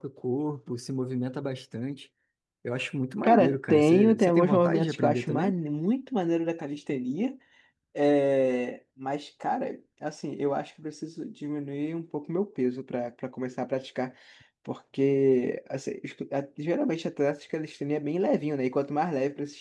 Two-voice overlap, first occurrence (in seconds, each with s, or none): 3.2 s